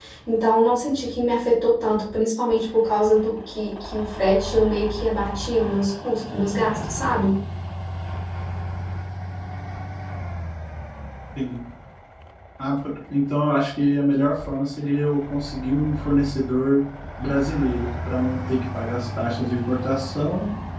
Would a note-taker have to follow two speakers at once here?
No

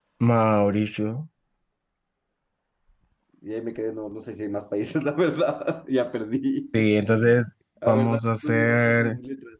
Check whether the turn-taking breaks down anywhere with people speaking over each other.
Yes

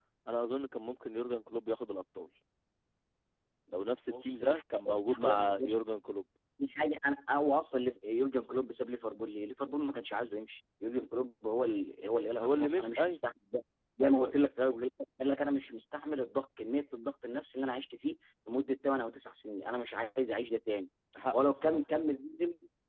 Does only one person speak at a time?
No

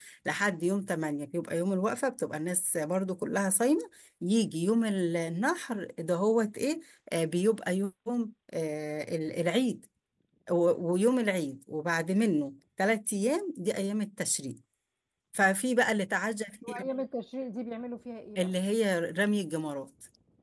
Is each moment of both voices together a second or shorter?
Yes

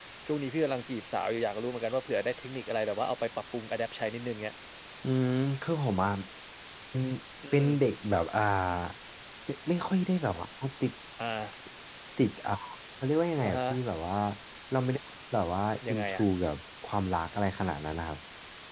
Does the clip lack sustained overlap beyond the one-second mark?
Yes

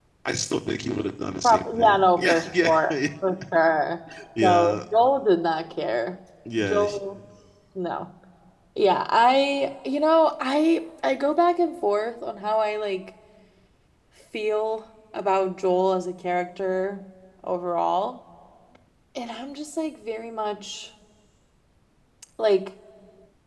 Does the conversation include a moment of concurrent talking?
Yes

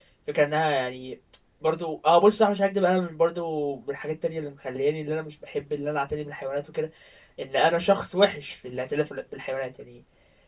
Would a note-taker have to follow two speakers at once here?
No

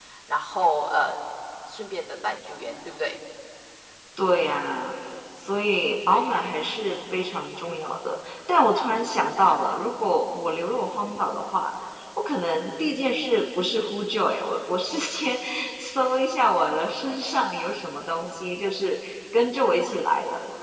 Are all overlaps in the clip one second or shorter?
Yes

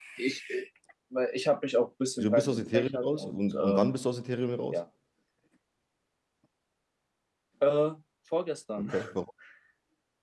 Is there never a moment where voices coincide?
No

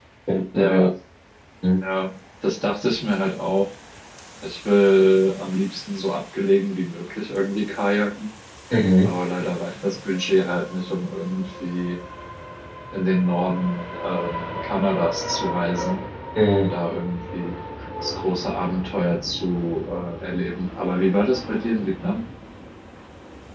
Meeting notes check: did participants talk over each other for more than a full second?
No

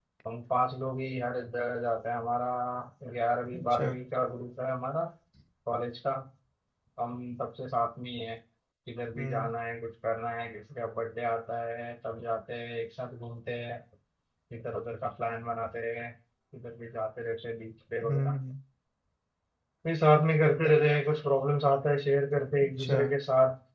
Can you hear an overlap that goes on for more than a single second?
No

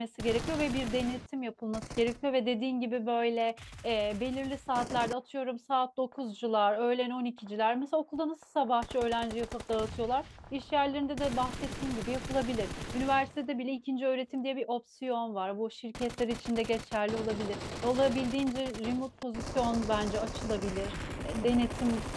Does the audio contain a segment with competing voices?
No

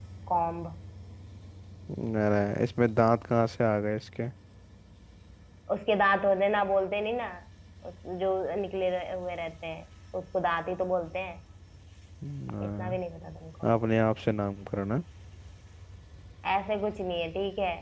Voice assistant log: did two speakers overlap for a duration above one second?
No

